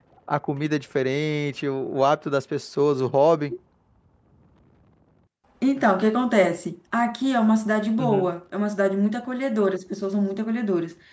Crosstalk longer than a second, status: none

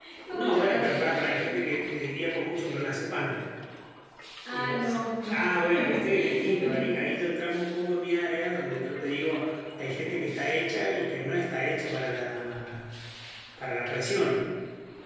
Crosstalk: present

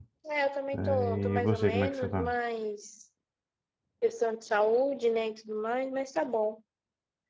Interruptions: present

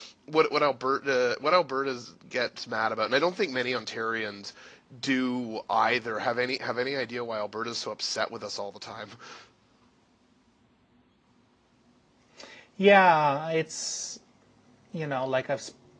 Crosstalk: none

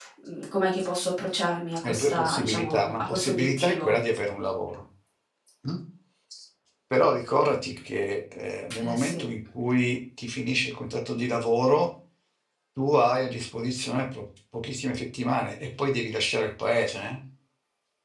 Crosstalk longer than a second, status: present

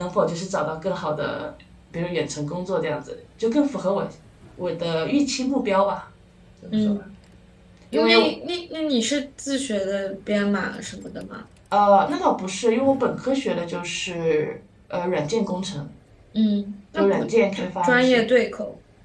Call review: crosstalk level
present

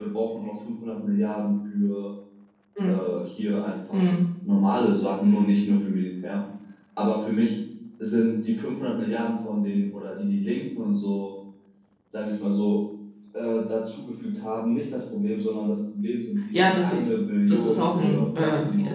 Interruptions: present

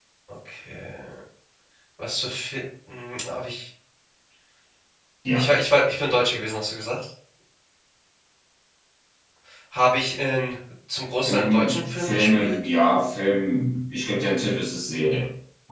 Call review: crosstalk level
present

